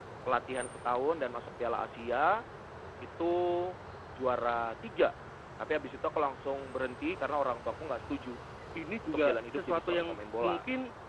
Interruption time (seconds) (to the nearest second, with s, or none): 9 s